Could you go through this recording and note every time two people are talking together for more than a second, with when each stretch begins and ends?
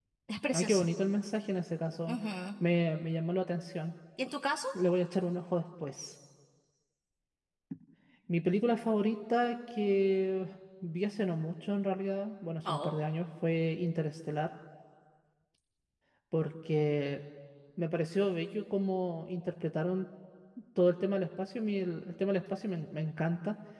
none

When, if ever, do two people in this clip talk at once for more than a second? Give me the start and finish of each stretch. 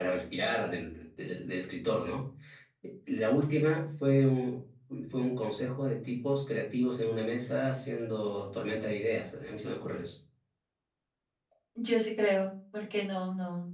none

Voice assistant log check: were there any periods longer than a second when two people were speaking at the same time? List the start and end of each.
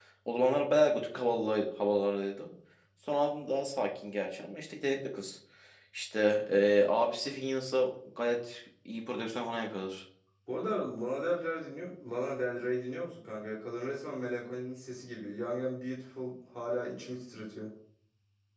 none

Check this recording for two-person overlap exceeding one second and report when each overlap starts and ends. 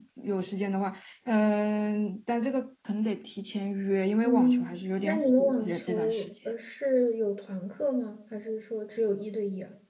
4.2-6.3

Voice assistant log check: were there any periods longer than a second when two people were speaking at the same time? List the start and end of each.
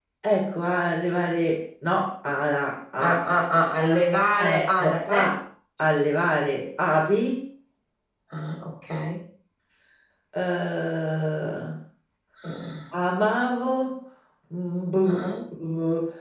3.8-5.2

